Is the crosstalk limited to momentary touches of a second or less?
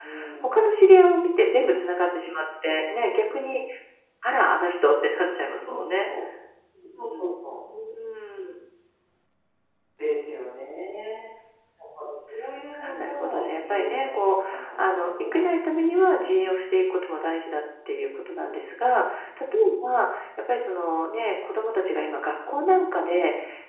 No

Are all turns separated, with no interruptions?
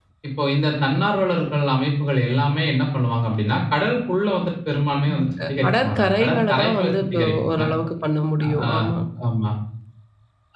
No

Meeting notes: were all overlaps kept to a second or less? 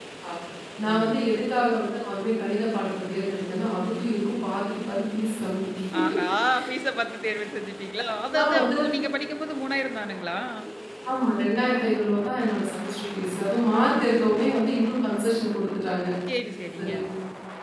Yes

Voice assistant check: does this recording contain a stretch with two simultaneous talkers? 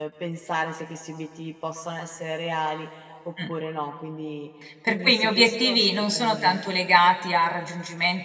Yes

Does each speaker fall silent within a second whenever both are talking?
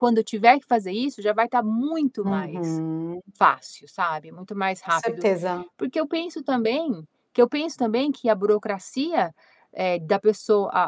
Yes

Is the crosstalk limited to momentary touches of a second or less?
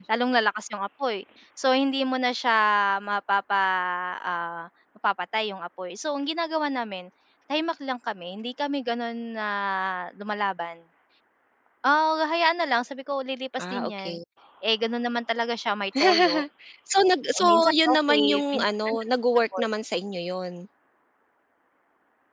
No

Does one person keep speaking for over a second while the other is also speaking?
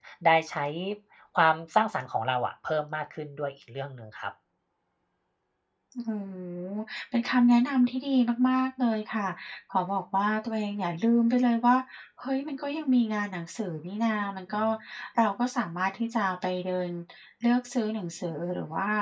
No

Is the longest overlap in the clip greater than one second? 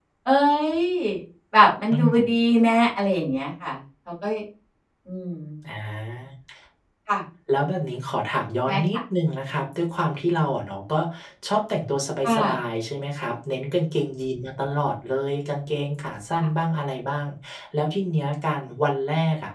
No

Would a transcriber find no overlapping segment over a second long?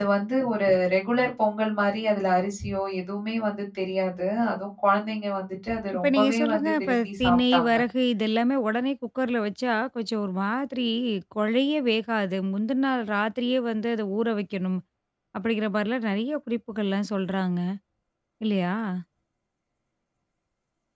No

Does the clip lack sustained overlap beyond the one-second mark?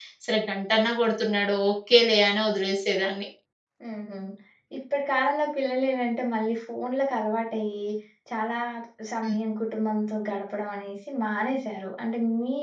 Yes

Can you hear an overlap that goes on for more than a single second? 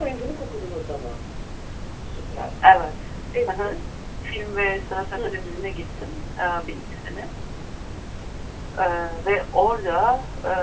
No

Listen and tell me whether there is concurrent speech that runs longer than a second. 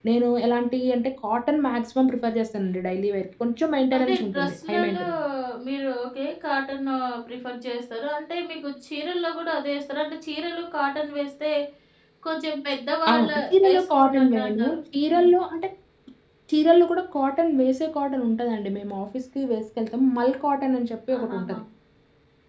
Yes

